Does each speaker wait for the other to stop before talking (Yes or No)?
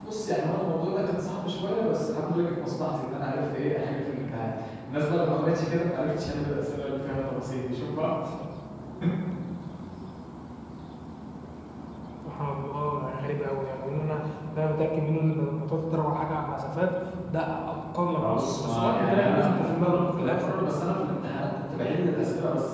No